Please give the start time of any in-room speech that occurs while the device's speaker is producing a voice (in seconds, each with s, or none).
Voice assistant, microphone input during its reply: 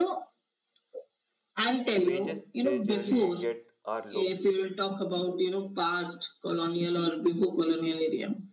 1.9 s